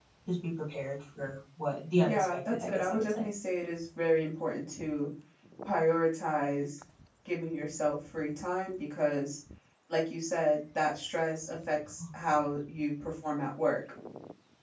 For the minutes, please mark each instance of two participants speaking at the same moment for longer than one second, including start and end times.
2.0-3.3

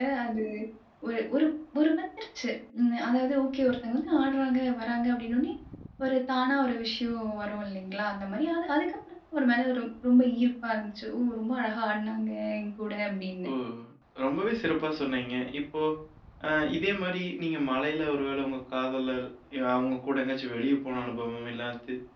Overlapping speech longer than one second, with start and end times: none

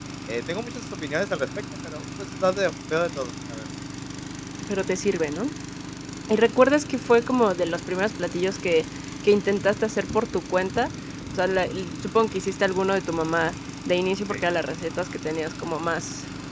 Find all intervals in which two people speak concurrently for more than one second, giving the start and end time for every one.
none

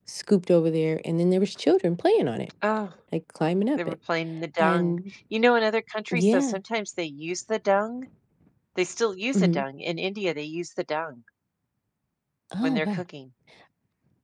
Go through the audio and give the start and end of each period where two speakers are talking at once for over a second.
none

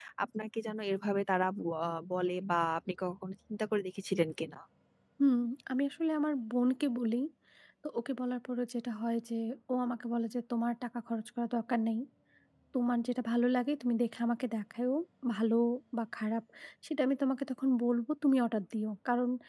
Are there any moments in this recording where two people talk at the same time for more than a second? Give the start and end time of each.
none

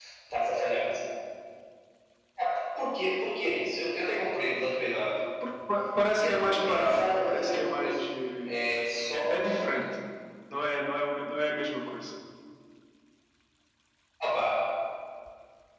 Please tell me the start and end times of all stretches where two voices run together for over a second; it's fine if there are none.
6.1-8.0

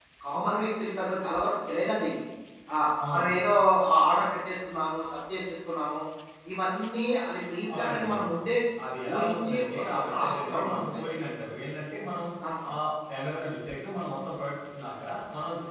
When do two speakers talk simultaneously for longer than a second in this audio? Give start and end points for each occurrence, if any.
9.1-11.0

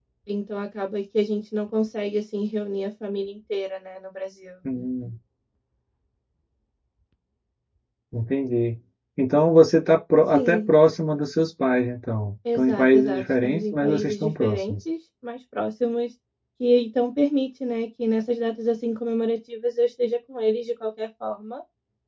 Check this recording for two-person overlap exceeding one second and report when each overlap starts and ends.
12.5-14.8

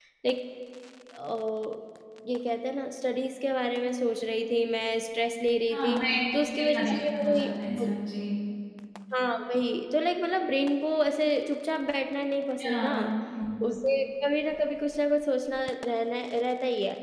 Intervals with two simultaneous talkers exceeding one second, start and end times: 6.6-7.9

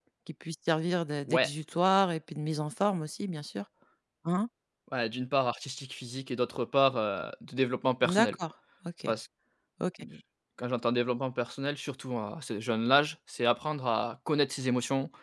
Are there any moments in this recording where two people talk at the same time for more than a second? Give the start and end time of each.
none

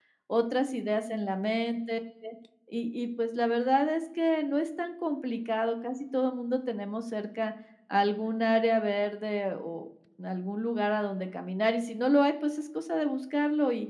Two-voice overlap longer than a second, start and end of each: none

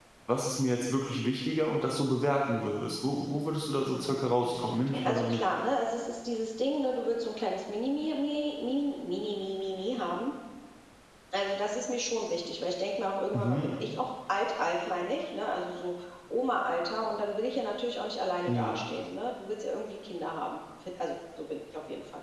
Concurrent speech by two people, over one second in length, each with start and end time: 3.8-5.4

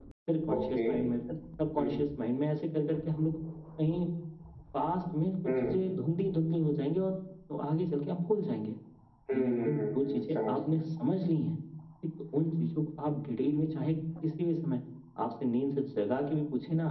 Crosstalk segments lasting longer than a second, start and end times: 9.3-10.6

